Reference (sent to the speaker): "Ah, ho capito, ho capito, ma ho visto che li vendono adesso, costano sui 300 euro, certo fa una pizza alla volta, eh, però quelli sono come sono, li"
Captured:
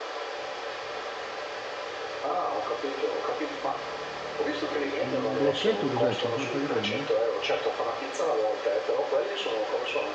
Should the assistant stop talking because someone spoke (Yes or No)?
Yes